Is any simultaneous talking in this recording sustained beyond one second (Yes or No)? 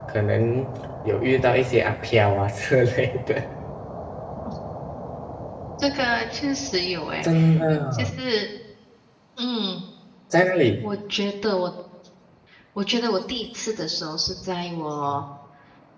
No